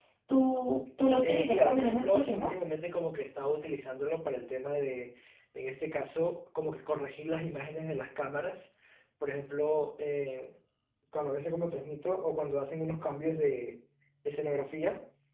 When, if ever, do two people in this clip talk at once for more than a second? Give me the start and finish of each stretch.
1.2-2.5

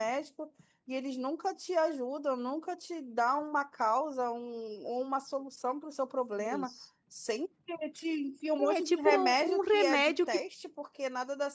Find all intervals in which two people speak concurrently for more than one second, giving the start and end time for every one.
8.8-10.4

